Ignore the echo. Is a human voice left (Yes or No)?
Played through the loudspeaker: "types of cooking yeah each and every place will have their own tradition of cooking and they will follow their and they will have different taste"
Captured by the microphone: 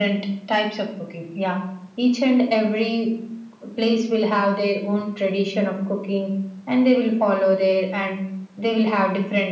No